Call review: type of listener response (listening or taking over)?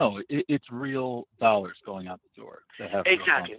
taking over